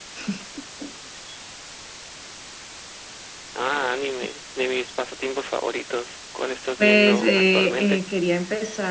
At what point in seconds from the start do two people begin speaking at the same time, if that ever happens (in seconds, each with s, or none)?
6.8 s